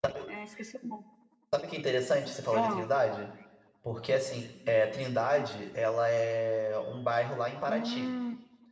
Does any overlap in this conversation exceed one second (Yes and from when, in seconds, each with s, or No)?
No